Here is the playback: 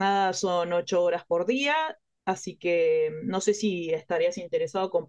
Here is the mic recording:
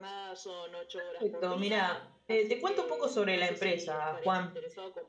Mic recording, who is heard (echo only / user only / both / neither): both